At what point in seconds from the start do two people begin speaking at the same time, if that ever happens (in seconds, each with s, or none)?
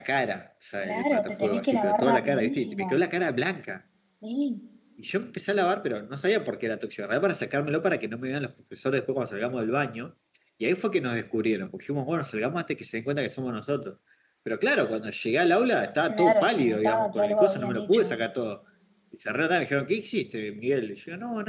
0.8 s